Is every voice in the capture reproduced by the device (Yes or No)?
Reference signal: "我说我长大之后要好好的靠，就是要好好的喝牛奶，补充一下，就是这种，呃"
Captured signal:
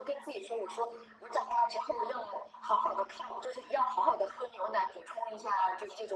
Yes